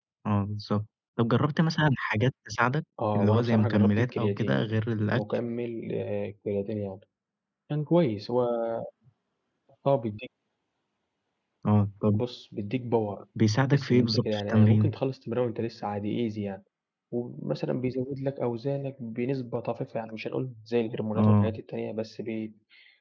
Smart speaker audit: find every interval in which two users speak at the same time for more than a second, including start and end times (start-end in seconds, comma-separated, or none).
3.1-5.2, 13.7-14.9